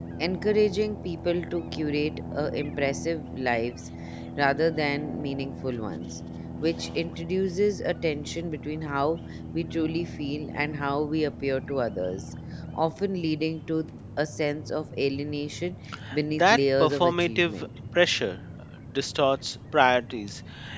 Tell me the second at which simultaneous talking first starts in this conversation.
16.3 s

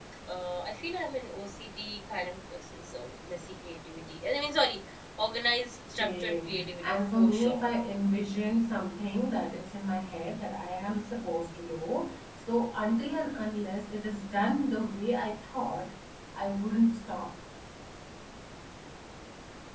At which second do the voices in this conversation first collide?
6.0 s

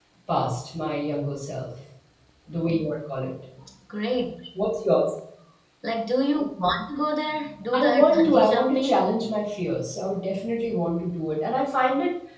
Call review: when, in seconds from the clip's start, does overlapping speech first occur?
7.7 s

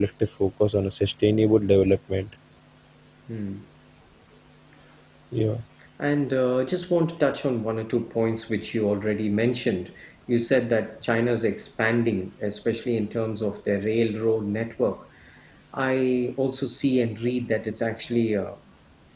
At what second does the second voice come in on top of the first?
none

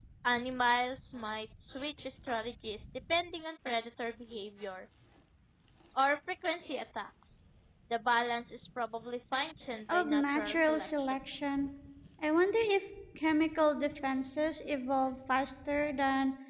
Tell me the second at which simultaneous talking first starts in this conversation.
9.9 s

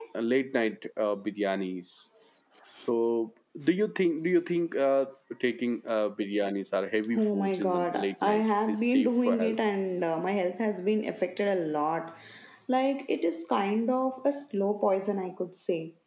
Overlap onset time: 7.1 s

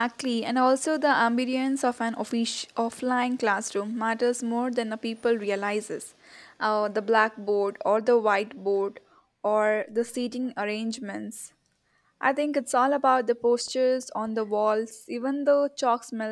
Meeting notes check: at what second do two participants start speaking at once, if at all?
none

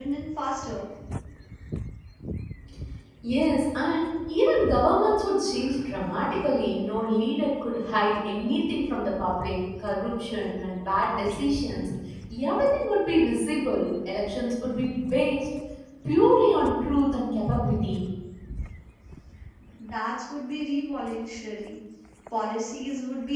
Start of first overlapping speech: none

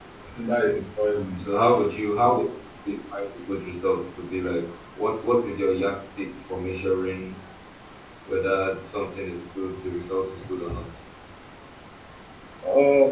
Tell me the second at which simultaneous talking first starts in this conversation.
none

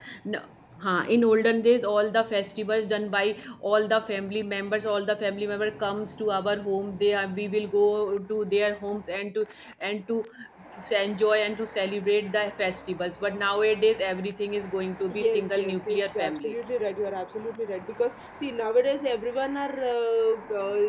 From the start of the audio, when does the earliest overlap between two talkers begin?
15.1 s

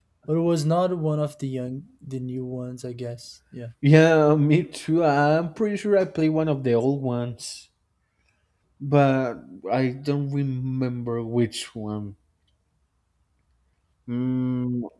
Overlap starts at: none

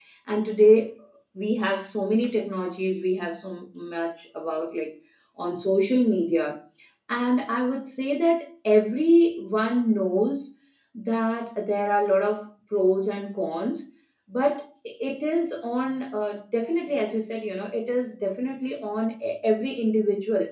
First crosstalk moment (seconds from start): none

